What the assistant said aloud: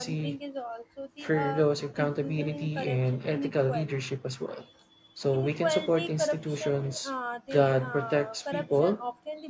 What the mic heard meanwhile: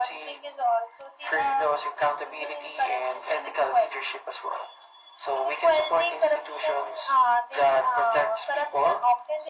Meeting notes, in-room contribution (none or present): none